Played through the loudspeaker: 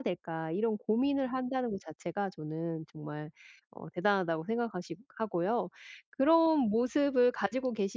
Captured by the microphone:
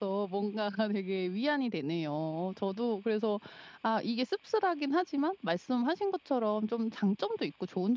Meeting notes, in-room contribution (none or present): present